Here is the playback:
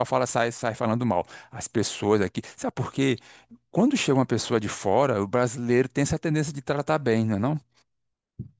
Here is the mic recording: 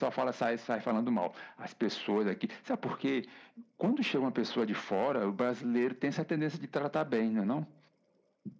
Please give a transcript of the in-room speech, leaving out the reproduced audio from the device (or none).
none